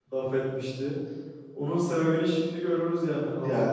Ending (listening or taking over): taking over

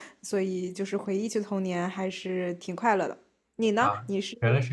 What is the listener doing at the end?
taking over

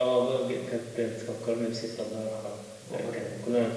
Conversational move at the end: listening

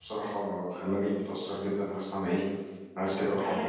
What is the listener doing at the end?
listening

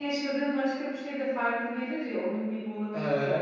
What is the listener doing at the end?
taking over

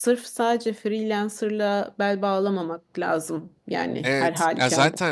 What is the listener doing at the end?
taking over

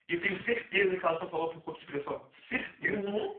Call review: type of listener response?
taking over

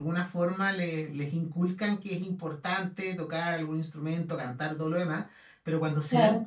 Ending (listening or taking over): listening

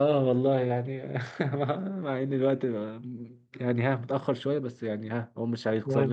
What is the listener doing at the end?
listening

